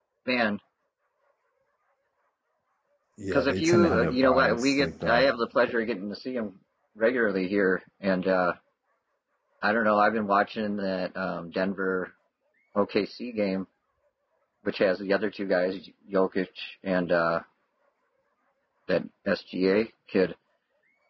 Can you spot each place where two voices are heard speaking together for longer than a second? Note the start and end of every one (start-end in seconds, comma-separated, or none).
3.3-5.3